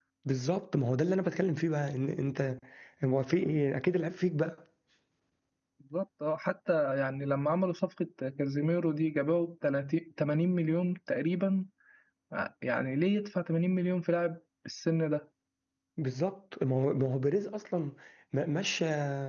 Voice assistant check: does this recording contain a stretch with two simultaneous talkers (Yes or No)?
No